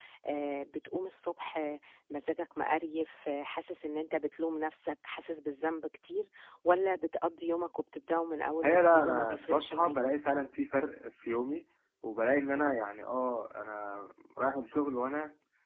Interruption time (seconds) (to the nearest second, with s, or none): 8 s